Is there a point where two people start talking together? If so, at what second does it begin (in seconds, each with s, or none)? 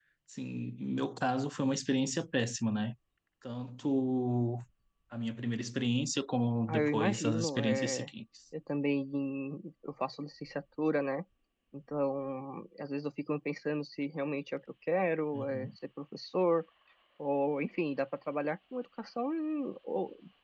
6.7 s